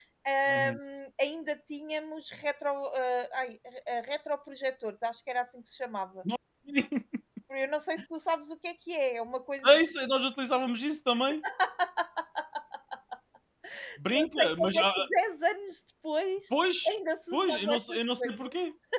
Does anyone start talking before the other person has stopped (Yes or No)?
Yes